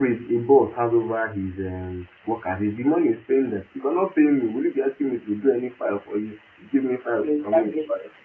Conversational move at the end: listening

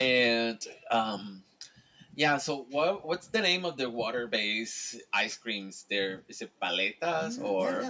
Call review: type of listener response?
taking over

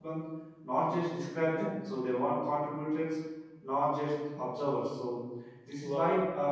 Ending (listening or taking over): listening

